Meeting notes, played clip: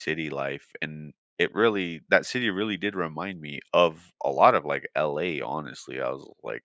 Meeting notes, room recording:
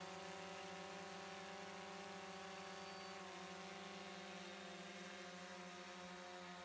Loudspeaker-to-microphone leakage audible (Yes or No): No